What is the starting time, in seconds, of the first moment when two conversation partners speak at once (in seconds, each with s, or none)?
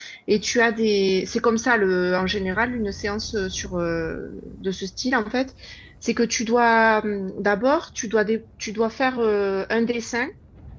none